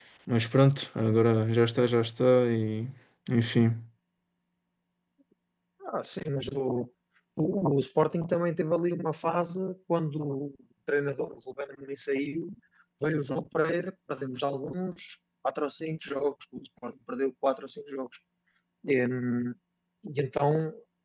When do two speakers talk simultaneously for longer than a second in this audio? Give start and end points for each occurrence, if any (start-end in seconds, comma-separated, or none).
none